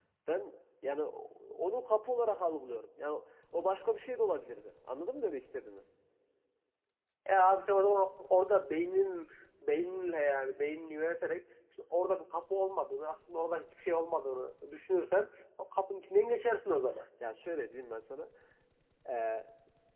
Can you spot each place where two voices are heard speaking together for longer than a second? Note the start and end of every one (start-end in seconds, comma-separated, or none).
none